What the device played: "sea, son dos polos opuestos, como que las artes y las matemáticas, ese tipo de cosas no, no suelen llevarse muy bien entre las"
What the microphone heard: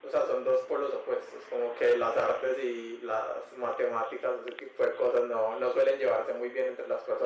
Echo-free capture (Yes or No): No